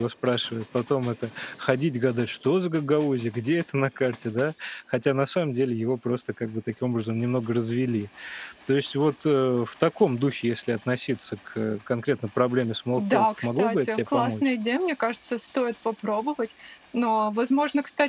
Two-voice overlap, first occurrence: 12.9 s

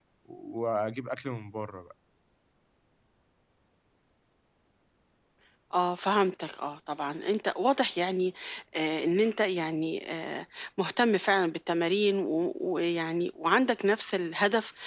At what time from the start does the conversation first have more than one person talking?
none

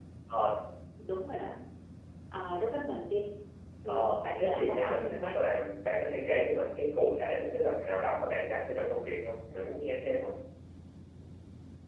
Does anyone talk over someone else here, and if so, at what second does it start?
3.9 s

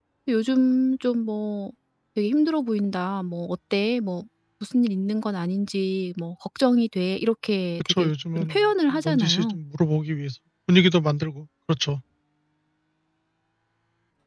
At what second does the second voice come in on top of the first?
7.9 s

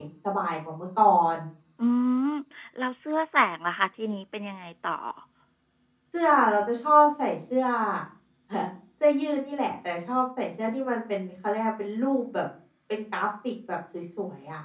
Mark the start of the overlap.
none

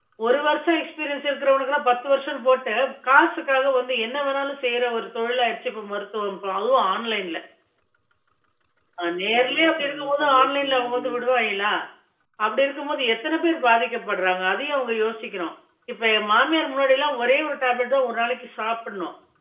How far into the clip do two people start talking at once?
9.4 s

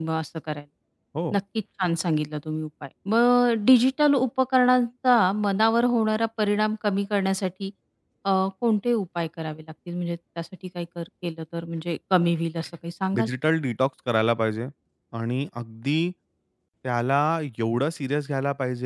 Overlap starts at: none

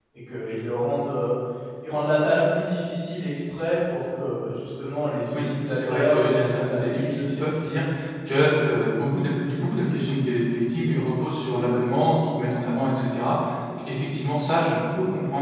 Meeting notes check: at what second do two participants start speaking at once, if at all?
5.3 s

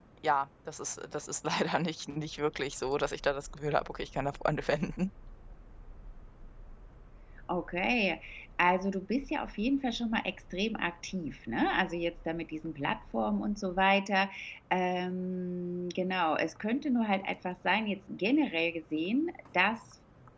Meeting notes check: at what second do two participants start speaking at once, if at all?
none

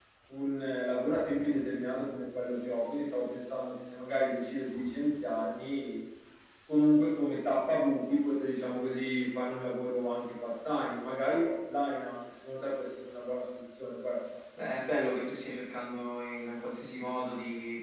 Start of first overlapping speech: none

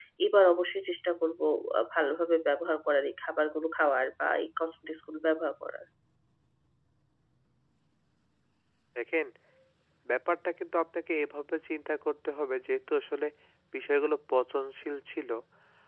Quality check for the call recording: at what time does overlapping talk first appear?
none

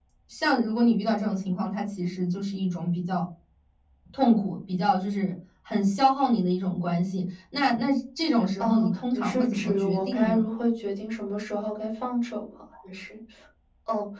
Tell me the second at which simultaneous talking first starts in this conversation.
8.3 s

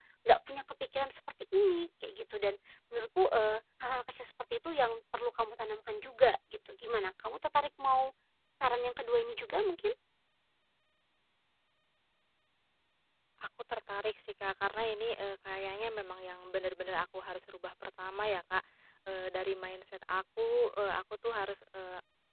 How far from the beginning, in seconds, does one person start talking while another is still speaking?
none

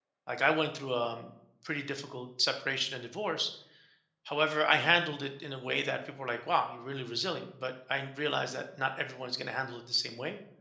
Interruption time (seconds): none

